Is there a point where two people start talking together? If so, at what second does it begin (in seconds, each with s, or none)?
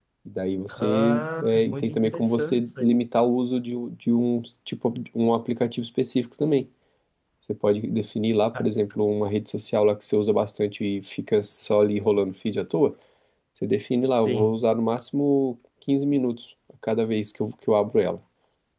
0.8 s